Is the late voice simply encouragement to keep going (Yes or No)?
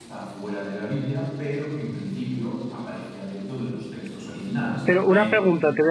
No